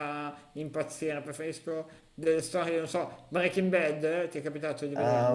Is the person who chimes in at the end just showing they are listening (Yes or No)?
No